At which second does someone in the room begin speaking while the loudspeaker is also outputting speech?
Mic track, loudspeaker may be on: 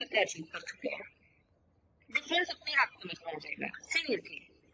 none

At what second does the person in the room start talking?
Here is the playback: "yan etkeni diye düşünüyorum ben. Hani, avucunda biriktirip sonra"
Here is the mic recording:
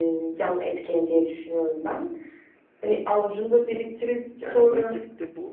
4 s

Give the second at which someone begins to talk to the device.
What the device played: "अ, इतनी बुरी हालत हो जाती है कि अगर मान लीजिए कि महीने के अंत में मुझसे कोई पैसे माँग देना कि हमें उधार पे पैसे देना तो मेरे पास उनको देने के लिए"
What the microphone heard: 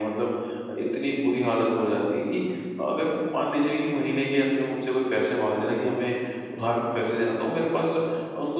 none

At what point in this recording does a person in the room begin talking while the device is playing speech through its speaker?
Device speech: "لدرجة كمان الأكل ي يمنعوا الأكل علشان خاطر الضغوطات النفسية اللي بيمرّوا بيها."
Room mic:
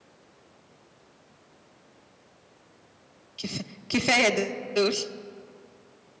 3 s

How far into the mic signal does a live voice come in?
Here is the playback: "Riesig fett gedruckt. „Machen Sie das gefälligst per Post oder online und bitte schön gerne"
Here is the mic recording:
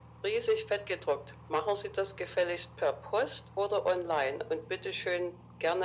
none

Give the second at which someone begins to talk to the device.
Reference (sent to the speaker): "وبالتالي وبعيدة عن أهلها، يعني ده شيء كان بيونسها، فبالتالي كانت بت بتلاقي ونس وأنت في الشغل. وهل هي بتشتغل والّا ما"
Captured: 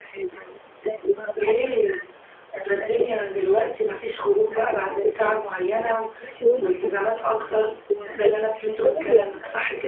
1 s

